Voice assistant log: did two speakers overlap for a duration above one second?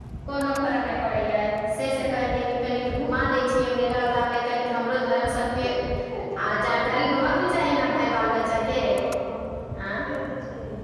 No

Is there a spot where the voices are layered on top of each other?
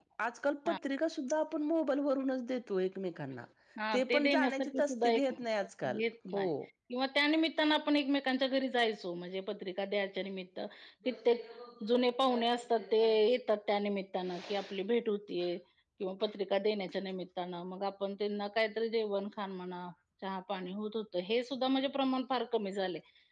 Yes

